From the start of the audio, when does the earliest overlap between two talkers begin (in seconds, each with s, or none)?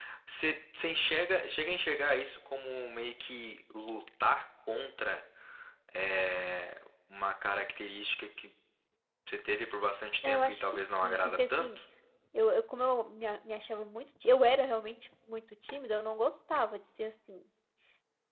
10.2 s